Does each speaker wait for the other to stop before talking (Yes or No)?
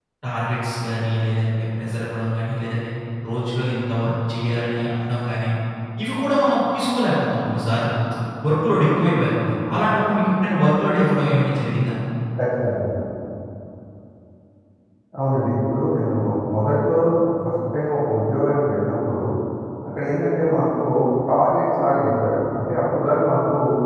Yes